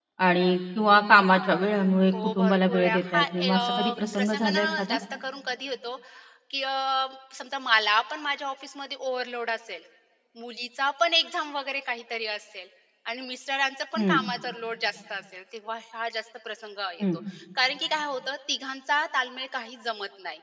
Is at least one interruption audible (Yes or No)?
Yes